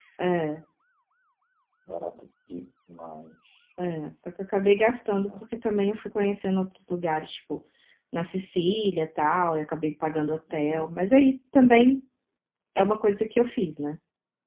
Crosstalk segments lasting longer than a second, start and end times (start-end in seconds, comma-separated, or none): none